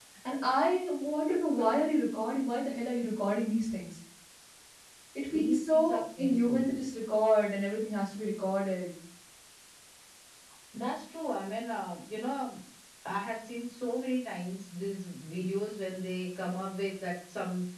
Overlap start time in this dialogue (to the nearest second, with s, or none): 5 s